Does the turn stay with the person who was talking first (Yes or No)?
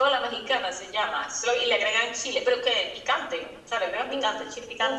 No